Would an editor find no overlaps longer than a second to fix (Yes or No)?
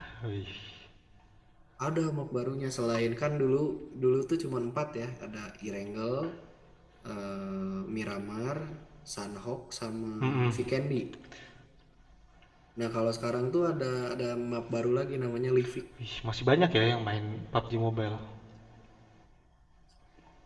Yes